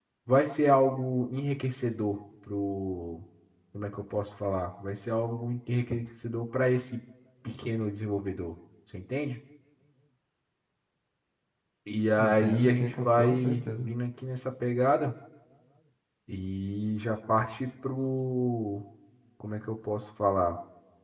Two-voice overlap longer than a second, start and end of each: 12.2-13.9

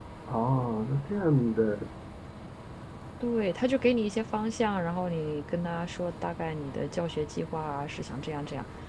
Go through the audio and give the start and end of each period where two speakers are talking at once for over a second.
none

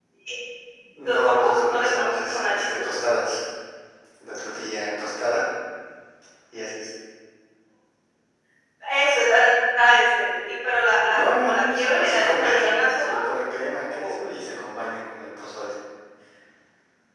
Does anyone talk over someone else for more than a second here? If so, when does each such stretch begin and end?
1.2-2.8, 11.1-13.1

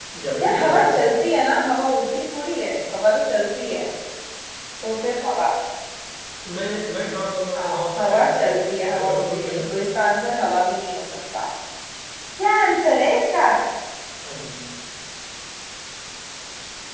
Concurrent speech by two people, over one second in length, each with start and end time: 7.5-9.6

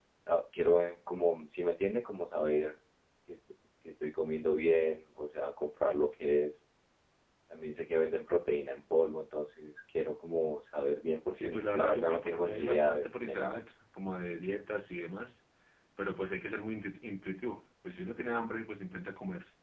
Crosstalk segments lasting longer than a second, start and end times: 11.3-13.6

